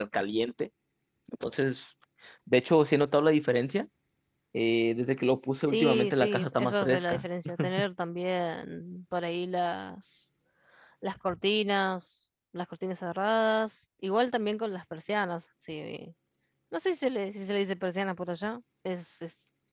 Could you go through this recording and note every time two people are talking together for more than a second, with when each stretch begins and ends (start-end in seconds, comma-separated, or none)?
5.7-7.2